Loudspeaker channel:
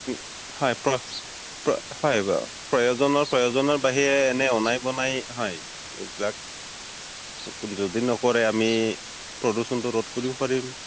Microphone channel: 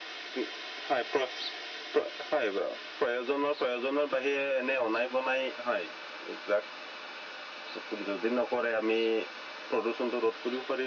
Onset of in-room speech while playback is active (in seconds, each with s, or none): none